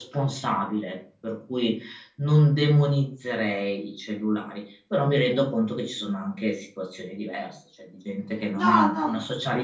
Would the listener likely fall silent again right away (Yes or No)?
Yes